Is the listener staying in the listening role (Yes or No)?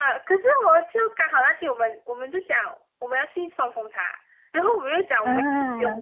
Yes